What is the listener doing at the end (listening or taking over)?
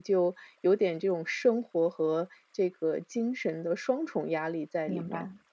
taking over